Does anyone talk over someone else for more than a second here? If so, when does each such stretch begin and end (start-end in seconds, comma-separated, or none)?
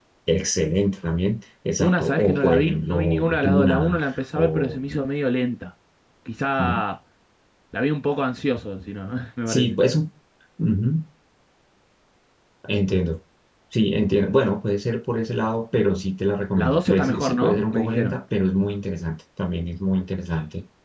1.8-4.8, 16.6-18.1